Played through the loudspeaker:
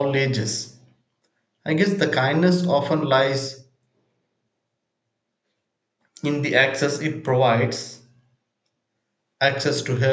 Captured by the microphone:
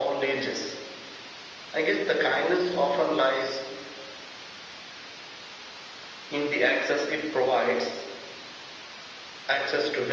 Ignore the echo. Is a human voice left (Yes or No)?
No